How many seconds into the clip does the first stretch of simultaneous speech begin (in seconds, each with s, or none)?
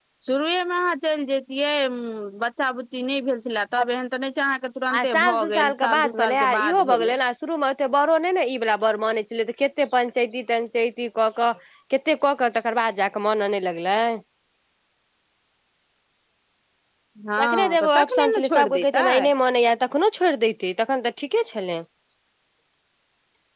5.0 s